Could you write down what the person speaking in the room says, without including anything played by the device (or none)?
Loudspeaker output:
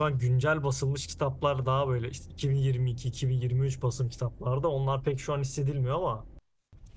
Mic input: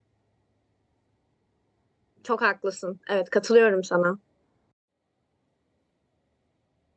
çok haklısın. Evet, katılıyorum sana.